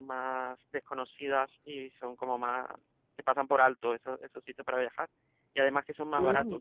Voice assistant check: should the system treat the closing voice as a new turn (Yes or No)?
No